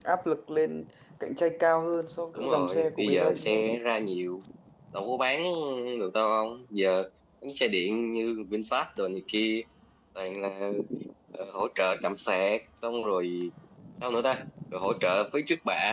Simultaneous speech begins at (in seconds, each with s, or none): 2.4 s